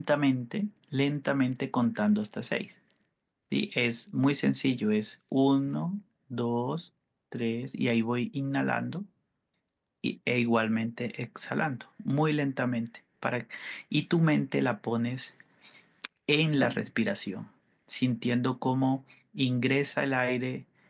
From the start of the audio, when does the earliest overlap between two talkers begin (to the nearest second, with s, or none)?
none